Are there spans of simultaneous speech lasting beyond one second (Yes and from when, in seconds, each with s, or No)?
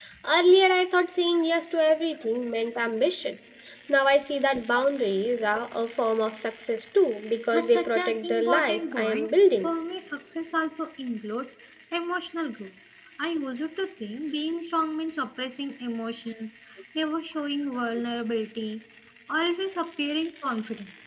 Yes, from 7.5 s